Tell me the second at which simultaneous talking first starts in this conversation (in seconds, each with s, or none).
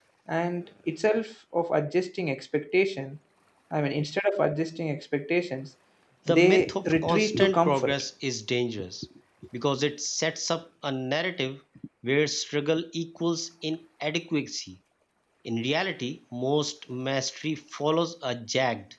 6.3 s